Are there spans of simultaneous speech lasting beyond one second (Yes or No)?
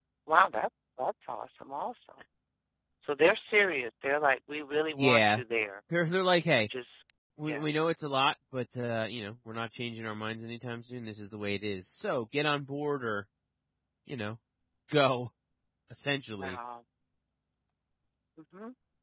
No